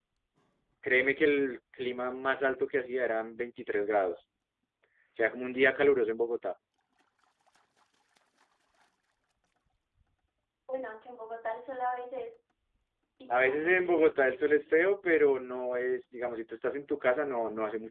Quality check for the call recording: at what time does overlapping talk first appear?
13 s

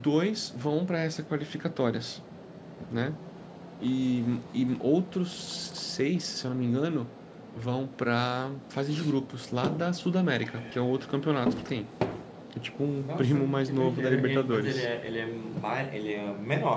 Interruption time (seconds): 13 s

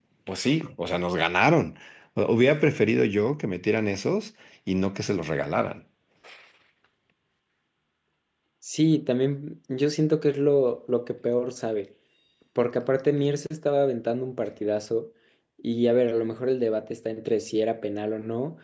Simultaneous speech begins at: none

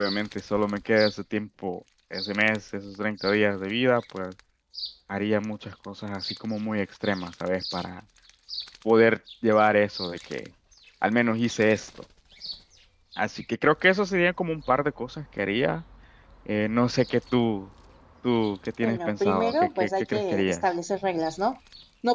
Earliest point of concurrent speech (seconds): 19 s

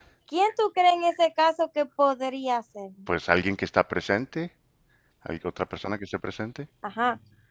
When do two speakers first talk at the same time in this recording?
none

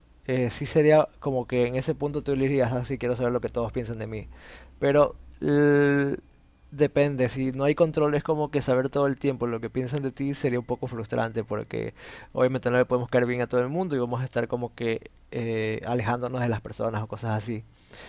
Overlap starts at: none

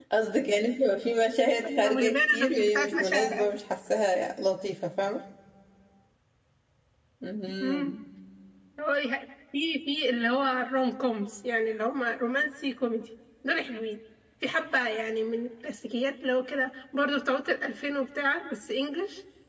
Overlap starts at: 2 s

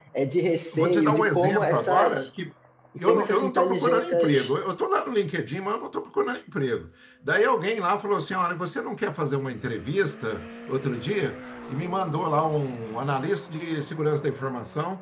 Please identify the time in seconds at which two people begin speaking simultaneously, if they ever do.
1 s

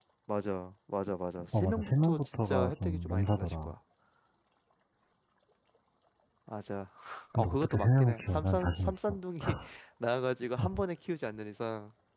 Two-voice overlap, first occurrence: 2 s

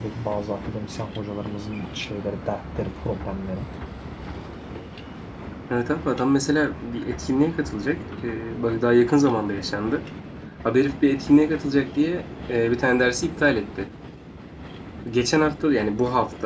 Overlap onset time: none

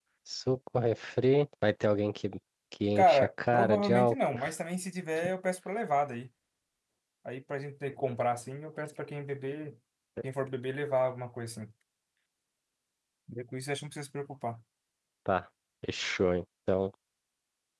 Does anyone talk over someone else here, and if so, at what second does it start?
3 s

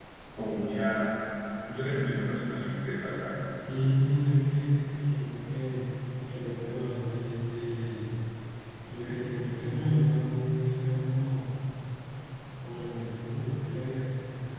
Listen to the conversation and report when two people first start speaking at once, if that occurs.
none

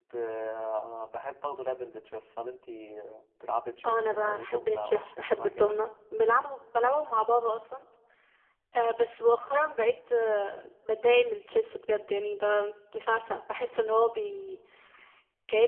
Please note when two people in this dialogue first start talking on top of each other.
4 s

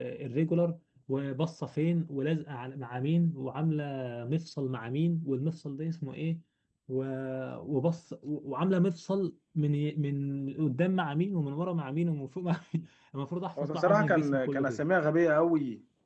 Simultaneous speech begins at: 14 s

